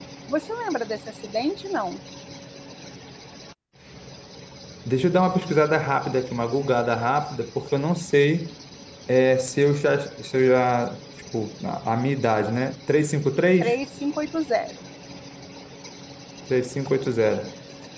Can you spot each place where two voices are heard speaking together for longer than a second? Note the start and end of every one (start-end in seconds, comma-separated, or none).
none